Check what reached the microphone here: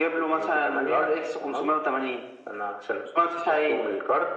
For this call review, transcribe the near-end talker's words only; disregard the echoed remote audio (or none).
none